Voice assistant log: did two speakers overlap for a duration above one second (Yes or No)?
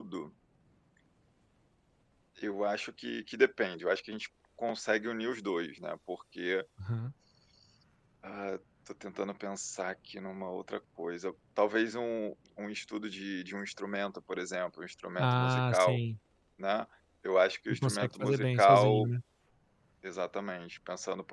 Yes